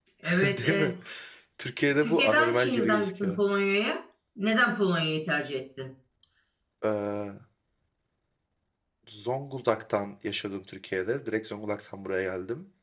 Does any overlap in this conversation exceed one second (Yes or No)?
Yes